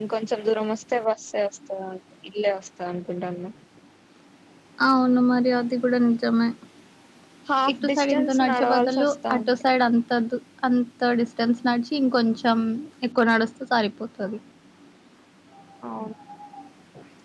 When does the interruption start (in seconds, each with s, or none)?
7.7 s